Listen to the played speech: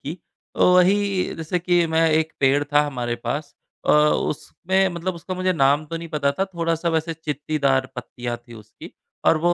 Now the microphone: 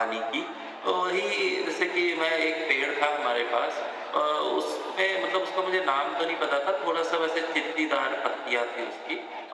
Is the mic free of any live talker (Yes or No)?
Yes